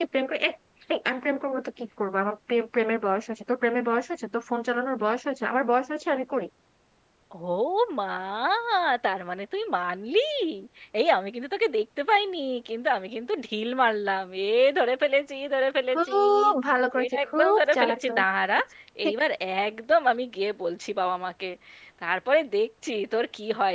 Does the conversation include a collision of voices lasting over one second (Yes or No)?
Yes